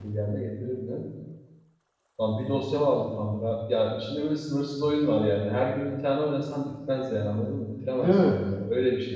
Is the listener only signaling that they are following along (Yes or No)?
Yes